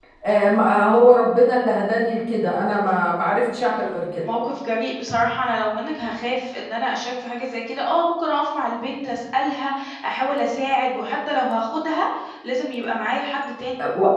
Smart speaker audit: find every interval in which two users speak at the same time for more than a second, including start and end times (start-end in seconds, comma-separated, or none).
none